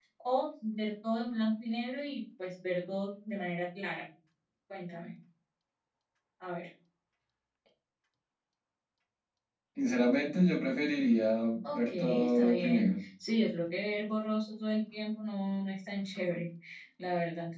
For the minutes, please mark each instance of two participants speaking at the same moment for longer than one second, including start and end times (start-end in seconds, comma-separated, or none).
11.7-13.0